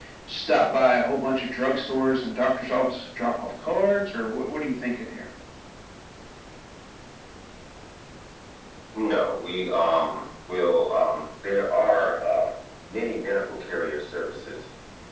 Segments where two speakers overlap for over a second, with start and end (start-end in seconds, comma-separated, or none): none